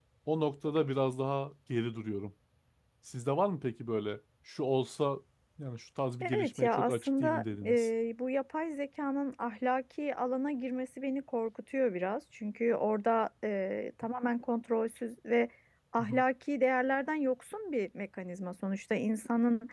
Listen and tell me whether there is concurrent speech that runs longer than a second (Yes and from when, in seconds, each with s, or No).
Yes, from 6.2 s